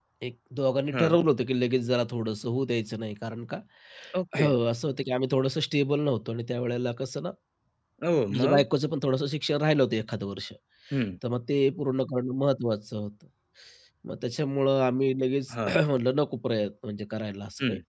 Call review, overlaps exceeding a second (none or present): none